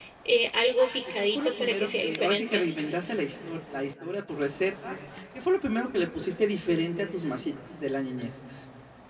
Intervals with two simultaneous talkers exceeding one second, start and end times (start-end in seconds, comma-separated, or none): 1.4-2.6